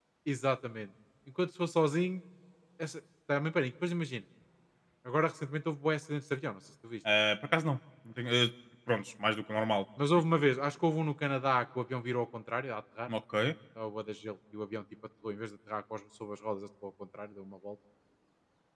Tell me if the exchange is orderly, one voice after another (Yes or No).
Yes